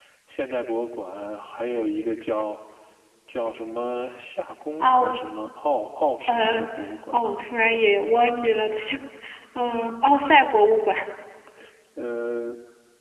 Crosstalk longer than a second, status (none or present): none